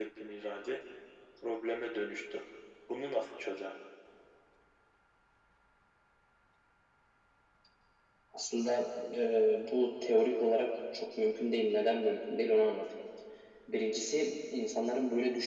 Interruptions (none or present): none